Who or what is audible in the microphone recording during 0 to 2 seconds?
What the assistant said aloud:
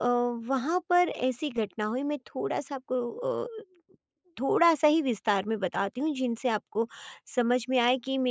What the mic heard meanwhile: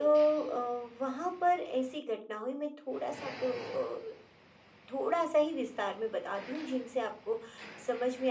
echo only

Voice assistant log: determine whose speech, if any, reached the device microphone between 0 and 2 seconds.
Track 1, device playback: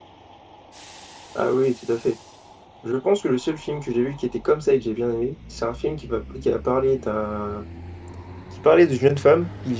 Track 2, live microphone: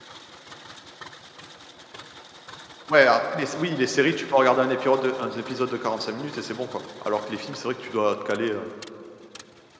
neither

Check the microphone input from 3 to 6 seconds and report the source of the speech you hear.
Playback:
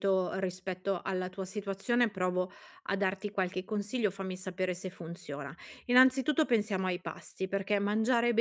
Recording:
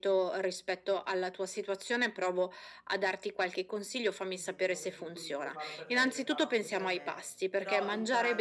both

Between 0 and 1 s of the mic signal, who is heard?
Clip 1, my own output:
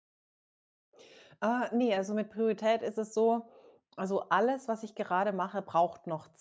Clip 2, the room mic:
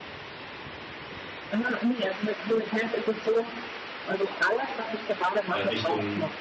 neither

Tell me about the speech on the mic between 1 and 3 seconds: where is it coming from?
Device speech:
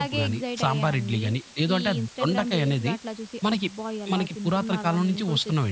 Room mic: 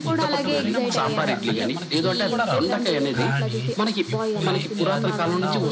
both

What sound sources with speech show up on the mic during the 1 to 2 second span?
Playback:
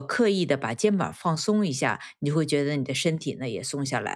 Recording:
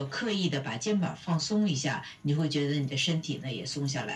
echo only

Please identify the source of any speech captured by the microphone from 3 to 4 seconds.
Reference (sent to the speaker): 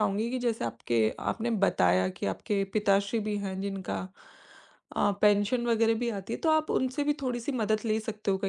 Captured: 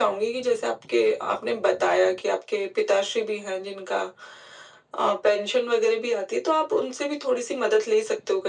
echo only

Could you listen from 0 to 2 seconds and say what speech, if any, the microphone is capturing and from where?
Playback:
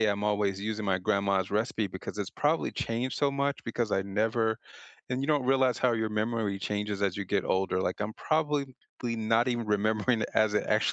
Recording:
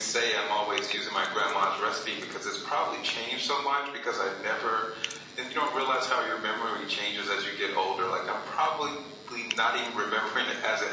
echo only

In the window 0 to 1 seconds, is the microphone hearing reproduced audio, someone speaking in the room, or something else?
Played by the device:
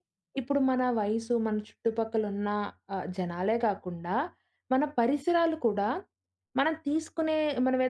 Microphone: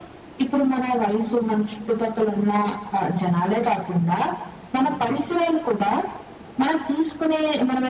echo only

